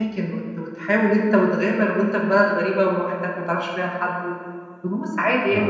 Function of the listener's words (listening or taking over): listening